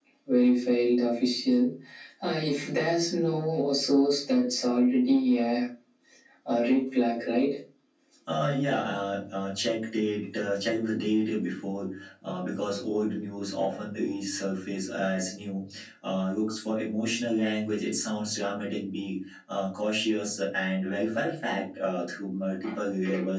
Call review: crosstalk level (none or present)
none